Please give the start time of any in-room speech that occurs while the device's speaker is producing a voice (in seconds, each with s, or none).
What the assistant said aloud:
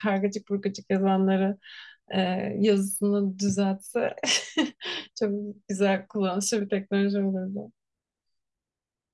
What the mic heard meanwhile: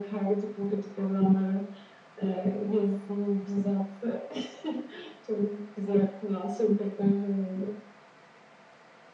none